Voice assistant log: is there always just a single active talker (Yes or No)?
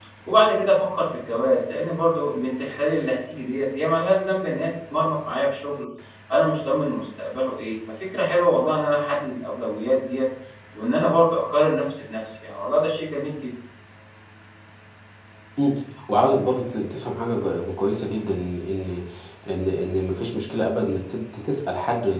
Yes